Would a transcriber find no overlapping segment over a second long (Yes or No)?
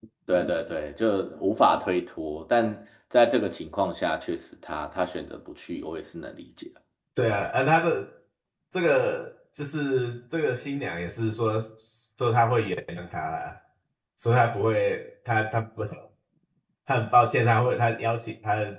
Yes